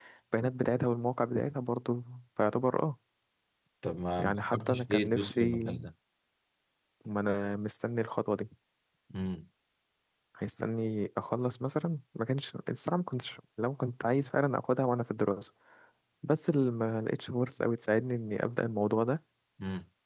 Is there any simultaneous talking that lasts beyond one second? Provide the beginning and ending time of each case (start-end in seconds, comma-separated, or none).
4.2-5.8